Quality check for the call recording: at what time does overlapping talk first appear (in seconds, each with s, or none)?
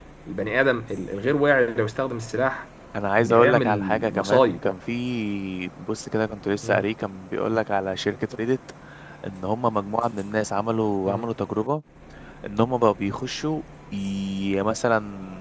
3.3 s